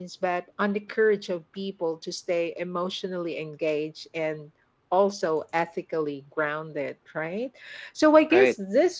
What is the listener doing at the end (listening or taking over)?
listening